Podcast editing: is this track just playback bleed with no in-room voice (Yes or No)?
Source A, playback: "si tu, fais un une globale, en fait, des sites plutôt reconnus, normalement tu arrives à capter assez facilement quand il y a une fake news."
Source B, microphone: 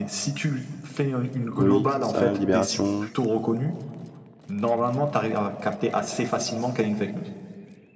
No